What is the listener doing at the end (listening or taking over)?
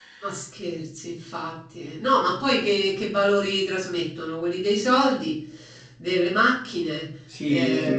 taking over